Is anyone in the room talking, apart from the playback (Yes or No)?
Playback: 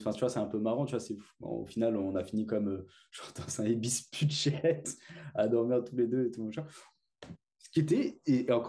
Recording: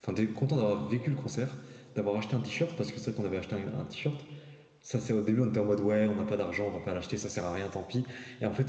Yes